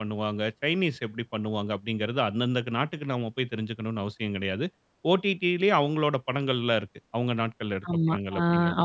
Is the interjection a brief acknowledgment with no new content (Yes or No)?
No